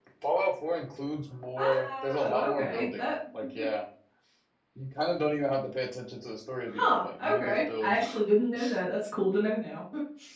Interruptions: present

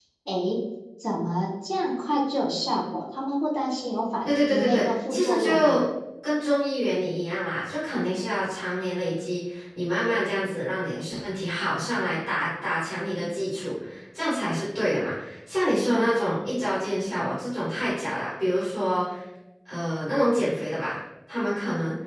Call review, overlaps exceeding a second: present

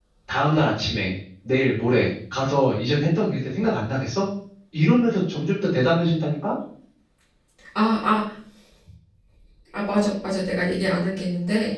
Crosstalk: none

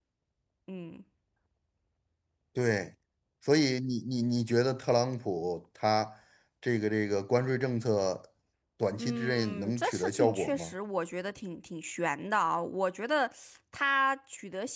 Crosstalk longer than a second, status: present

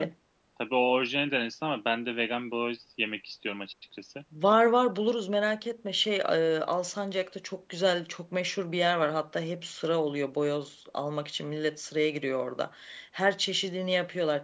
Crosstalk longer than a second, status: none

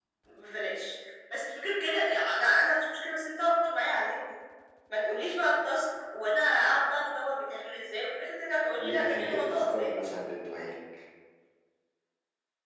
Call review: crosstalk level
present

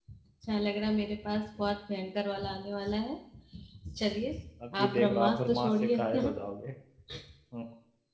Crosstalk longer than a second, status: present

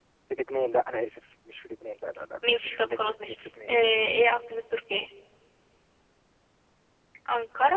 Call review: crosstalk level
present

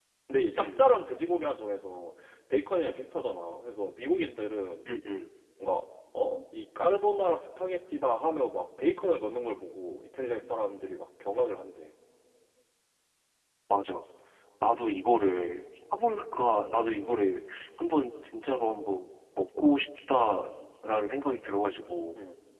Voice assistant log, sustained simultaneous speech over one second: none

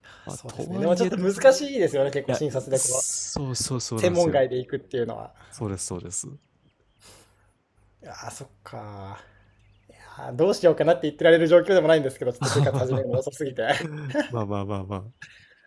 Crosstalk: present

